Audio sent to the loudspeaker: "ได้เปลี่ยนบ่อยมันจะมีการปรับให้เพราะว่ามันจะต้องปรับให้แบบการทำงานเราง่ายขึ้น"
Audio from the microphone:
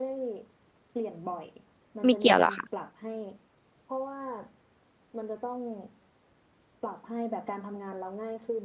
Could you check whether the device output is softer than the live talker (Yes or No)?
Yes